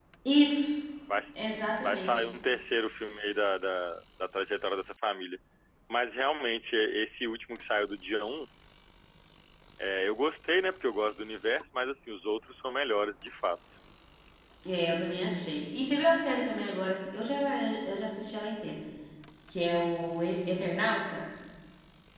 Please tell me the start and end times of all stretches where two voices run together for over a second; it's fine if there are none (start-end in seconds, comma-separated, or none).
none